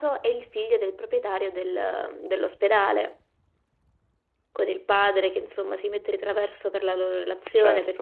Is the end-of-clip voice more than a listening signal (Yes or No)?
No